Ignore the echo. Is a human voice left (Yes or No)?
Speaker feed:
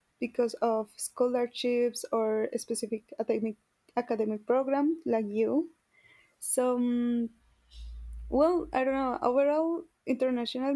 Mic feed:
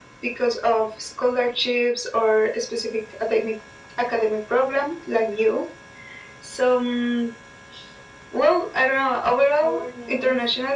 Yes